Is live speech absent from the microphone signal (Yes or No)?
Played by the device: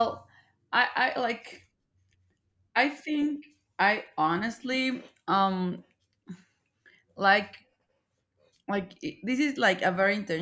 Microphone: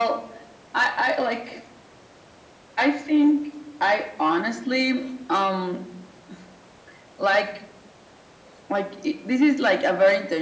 Yes